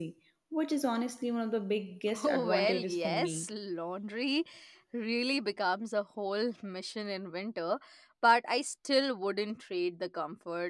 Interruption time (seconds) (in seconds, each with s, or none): 2.2 s